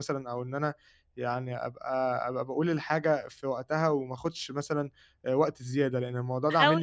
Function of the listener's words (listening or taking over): taking over